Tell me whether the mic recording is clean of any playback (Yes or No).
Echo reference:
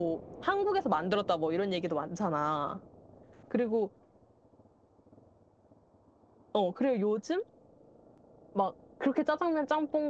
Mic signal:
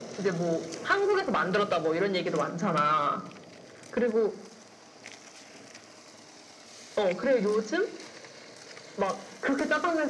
No